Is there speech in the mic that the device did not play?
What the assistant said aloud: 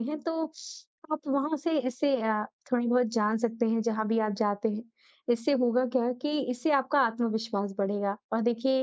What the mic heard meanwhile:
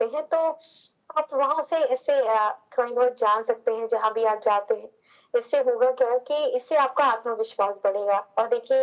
No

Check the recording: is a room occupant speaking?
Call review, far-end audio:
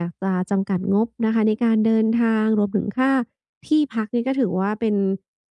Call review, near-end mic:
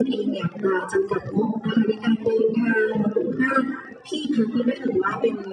No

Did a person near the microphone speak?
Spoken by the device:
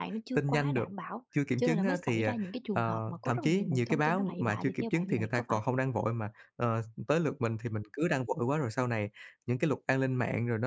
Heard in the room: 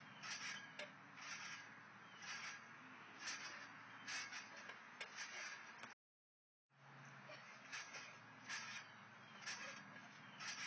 No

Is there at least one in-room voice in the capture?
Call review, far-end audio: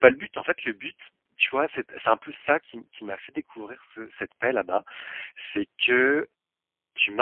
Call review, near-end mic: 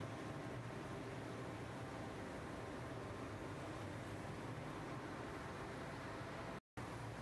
No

